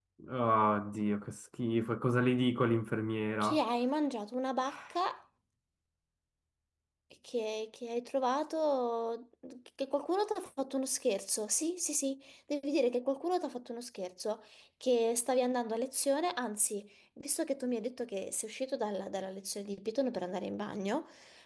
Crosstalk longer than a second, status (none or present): none